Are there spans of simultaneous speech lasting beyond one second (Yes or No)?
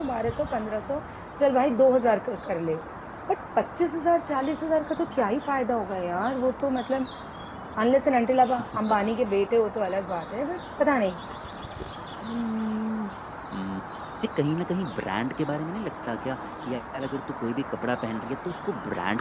No